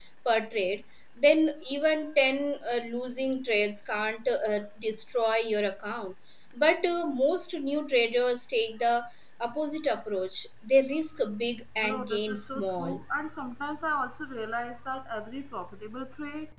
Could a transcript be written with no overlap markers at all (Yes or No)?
No